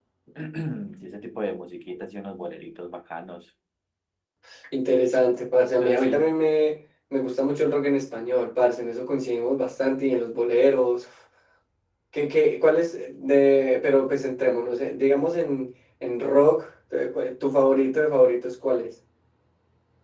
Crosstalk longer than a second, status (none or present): none